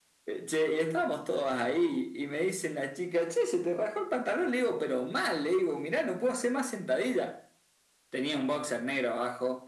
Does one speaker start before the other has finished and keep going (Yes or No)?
No